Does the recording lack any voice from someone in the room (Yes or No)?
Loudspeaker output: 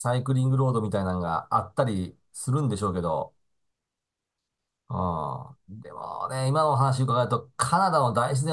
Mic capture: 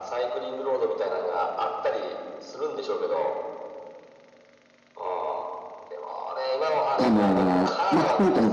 No